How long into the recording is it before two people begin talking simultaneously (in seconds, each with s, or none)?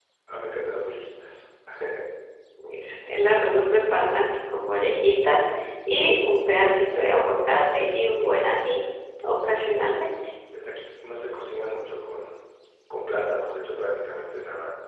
none